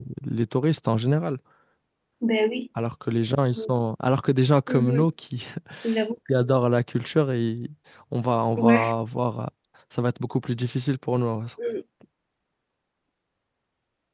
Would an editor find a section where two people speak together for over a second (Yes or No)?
No